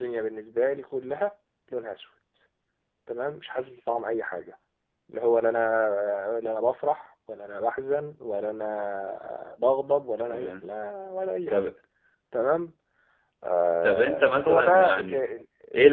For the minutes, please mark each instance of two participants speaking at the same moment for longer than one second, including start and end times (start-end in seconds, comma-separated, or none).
13.8-15.2